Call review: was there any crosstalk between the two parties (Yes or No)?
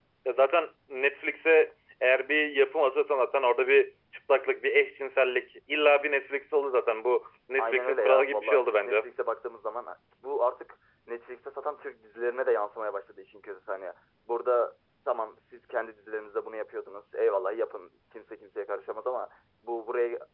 Yes